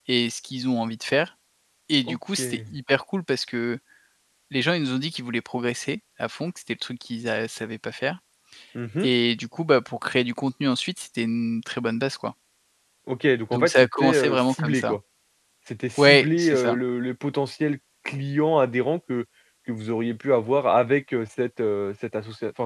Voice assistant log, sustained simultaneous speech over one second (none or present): present